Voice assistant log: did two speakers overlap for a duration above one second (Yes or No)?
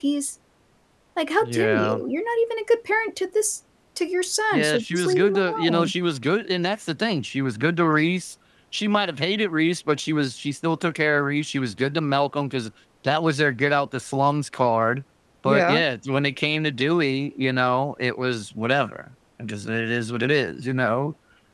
Yes